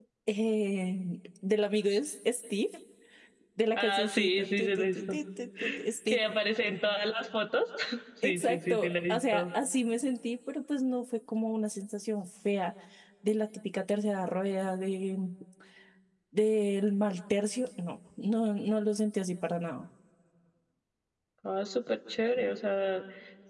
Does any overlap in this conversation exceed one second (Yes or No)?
Yes